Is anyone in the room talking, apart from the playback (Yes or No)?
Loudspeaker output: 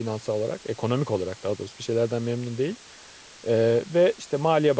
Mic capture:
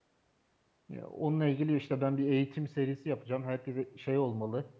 Yes